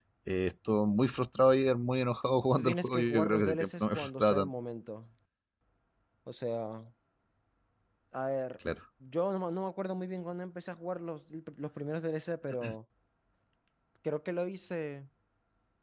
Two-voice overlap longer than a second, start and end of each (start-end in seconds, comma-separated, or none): 2.6-4.5